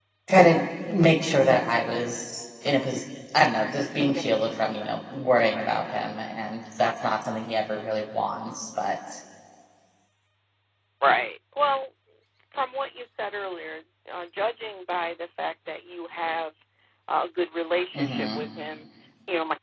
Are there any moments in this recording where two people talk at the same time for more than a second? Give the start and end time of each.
none

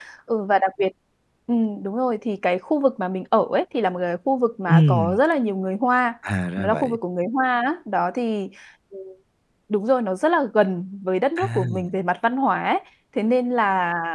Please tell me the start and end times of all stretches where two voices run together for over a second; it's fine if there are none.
none

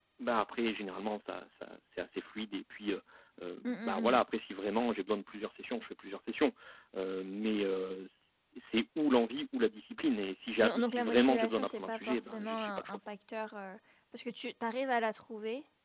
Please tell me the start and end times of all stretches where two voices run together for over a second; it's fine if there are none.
10.6-13.0

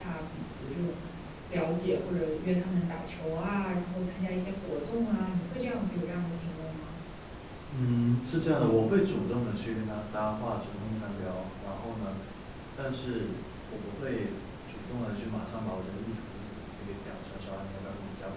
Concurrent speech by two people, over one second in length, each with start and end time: none

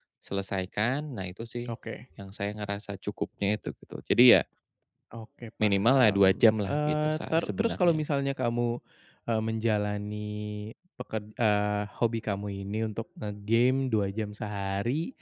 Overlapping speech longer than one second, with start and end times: 5.6-8.0

